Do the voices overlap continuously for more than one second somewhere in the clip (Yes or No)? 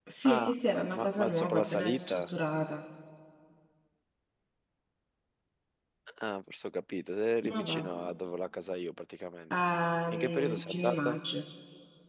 Yes